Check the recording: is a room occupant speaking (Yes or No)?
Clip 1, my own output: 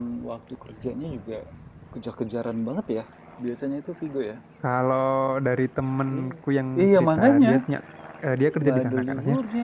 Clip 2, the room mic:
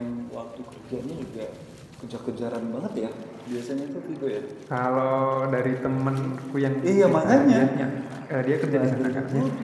No